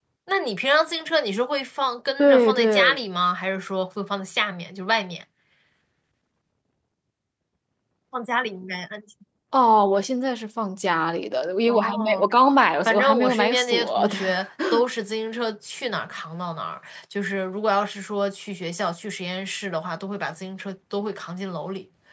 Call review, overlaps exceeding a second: present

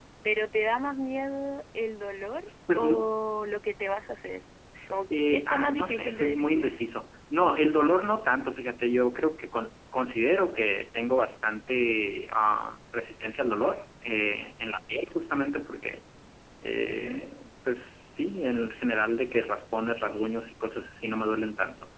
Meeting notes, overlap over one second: present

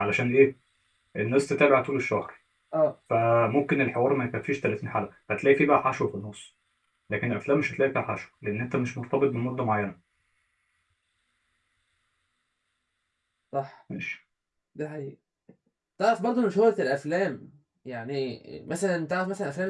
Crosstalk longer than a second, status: none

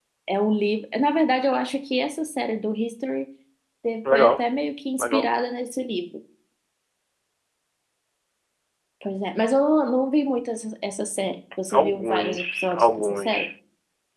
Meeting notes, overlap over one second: present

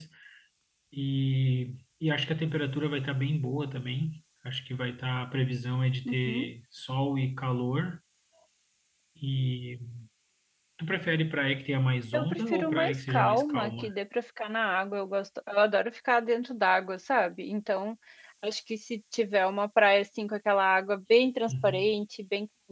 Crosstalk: present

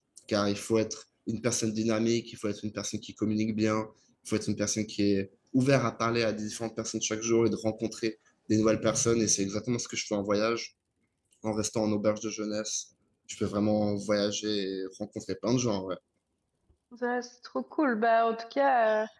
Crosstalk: none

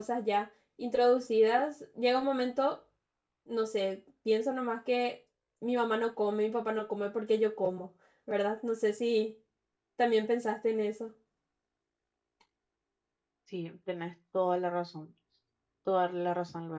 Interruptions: none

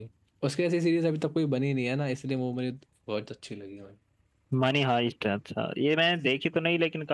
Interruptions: none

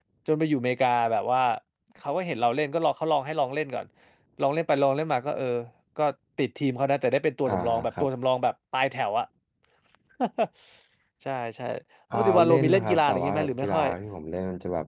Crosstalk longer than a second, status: present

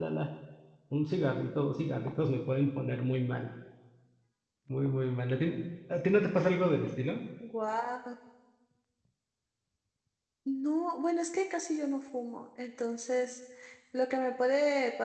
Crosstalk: none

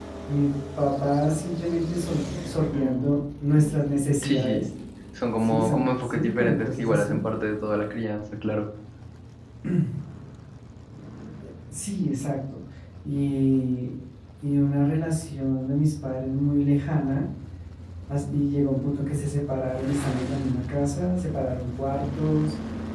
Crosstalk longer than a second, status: present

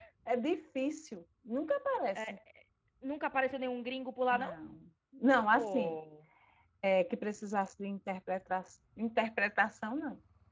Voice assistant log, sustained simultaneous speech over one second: none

